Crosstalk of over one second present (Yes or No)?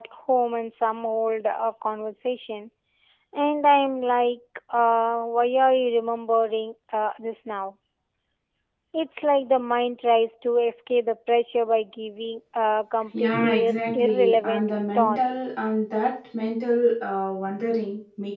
Yes